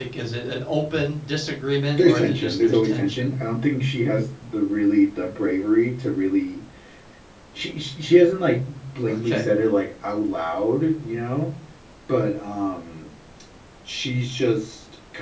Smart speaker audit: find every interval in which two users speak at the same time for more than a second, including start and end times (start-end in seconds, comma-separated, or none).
1.9-3.4